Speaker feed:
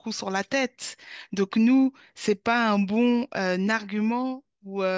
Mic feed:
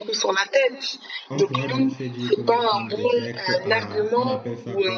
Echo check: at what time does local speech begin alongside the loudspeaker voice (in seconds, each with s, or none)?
1.3 s